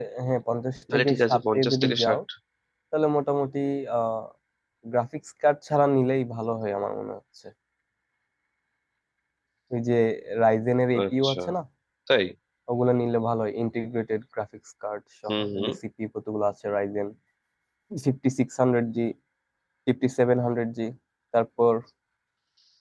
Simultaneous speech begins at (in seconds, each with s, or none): 0.9 s